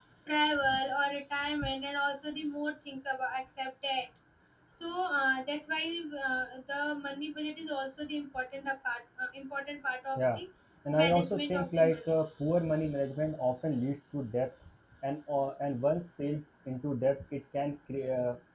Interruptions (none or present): present